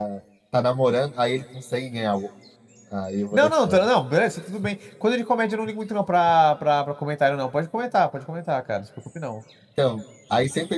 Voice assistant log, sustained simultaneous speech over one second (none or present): none